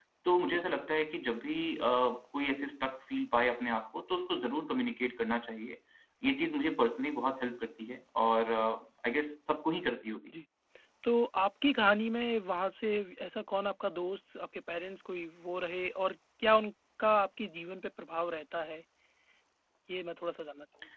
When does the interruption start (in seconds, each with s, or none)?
none